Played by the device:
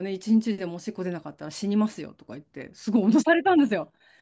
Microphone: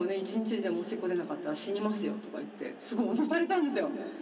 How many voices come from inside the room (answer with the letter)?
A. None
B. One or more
A